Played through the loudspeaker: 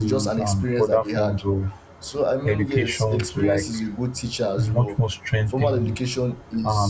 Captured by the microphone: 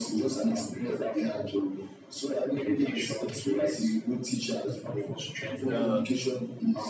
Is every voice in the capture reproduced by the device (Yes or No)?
No